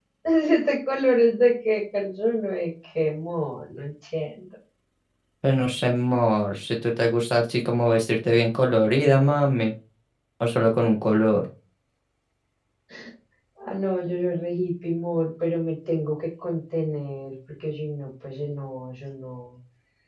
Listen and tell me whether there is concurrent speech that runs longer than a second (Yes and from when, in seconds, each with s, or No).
No